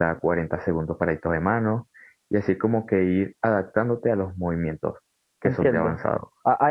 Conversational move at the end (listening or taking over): taking over